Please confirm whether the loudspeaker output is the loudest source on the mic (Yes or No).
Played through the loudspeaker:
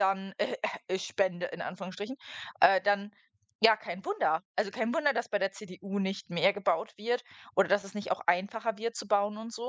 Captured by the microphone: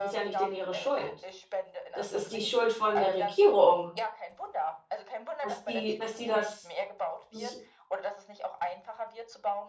No